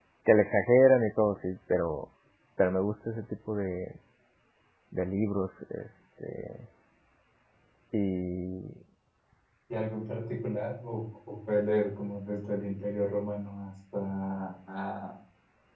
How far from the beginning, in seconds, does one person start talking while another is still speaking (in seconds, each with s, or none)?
none